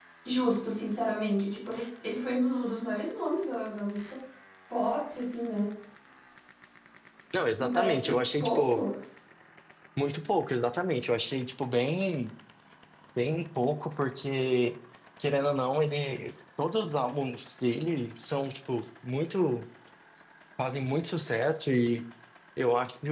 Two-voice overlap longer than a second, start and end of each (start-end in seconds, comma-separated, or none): 7.6-8.8